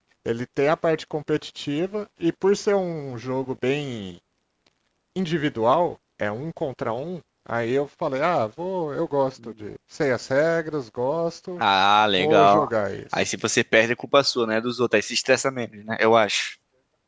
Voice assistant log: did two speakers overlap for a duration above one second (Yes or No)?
No